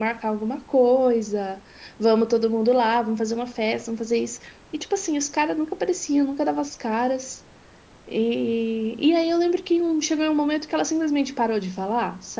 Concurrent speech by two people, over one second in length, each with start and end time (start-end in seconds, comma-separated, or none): none